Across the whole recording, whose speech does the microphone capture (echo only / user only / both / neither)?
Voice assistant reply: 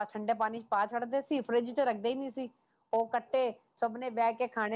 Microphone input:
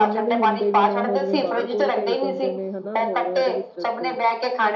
both